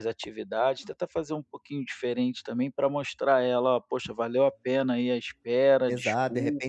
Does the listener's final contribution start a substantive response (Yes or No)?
Yes